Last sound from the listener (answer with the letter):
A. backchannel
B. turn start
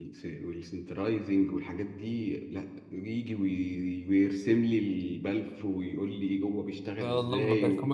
B